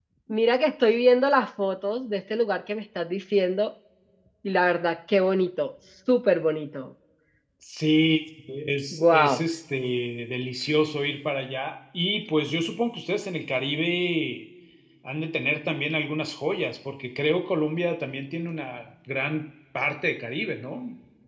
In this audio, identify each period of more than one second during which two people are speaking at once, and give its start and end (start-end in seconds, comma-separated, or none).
none